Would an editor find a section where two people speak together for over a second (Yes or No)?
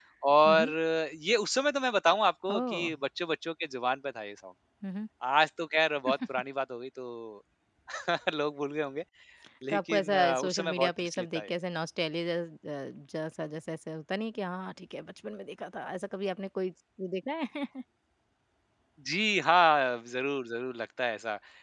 Yes